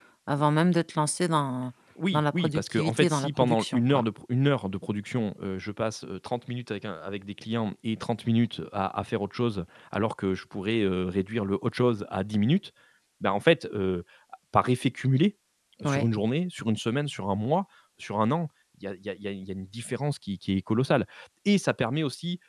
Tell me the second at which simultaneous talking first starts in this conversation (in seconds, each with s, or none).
2.1 s